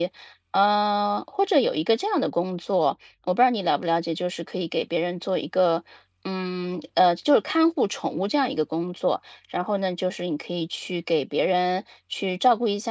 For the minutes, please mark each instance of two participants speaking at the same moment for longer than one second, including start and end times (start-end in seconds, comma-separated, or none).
none